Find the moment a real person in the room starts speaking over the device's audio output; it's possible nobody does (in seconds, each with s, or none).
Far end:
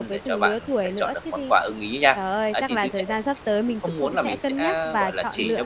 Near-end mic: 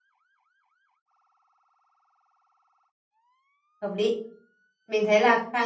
3.8 s